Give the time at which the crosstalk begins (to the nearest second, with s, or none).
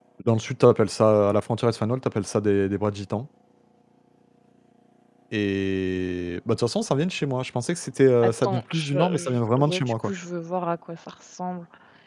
8 s